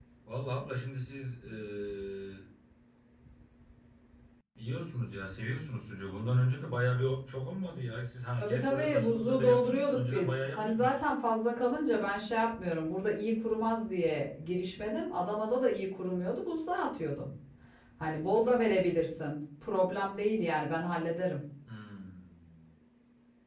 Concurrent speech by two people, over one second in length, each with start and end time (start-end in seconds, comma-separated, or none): 8.4-11.0